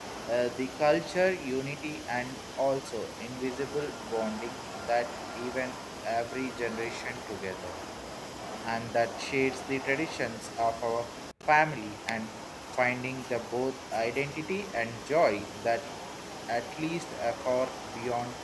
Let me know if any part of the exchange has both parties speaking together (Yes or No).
No